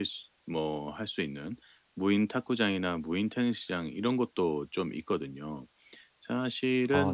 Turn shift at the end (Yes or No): No